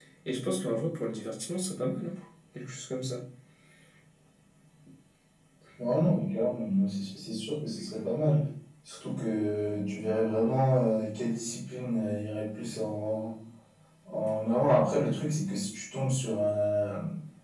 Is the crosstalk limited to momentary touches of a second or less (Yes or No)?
Yes